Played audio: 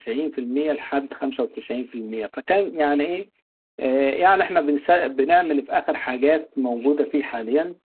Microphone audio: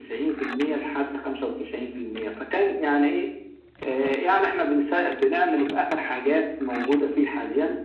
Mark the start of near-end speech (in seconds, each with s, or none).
none